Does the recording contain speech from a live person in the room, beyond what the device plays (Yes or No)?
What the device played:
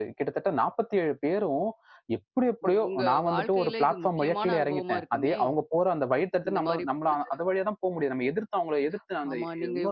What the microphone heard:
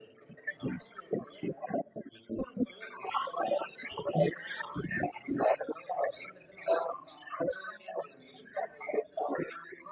No